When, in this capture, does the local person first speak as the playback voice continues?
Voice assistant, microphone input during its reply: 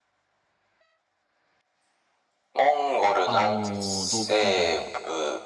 3.2 s

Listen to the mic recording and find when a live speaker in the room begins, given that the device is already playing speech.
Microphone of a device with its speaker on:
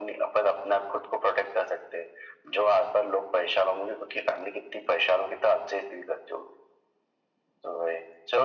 none

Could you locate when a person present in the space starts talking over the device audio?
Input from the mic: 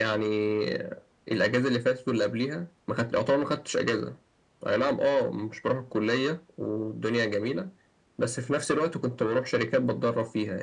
none

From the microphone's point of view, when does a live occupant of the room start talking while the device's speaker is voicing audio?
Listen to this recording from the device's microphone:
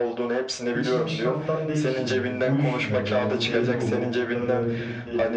0.7 s

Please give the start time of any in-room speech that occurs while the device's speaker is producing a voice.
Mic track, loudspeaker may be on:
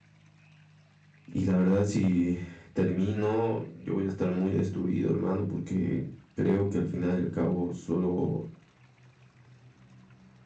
1.3 s

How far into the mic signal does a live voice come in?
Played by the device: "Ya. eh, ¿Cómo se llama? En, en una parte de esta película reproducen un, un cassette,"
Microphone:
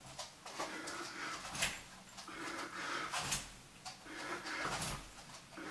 none

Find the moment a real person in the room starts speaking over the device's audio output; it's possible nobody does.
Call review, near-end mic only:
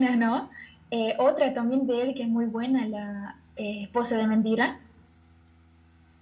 none

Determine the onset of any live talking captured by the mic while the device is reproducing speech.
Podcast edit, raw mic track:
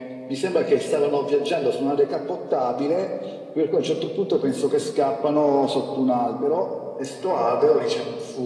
none

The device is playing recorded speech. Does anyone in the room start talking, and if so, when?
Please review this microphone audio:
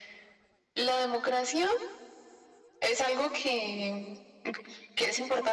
none

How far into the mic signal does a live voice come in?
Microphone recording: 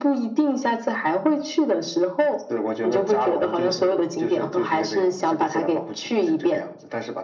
none

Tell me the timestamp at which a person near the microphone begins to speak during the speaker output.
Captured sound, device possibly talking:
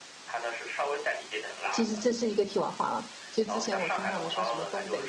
1.7 s

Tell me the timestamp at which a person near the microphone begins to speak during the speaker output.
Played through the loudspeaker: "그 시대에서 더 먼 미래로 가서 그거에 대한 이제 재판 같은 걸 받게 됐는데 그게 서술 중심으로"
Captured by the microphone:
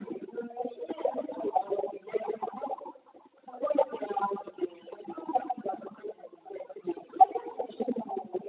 none

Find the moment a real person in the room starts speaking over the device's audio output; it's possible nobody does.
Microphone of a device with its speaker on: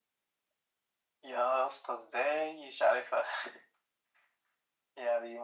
none

